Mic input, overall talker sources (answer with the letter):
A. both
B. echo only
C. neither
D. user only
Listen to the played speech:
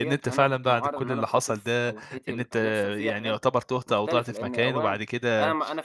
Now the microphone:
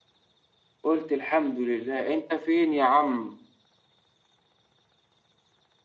D